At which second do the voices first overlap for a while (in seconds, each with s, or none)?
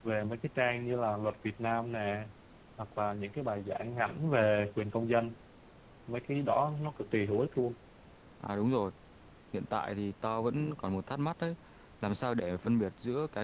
none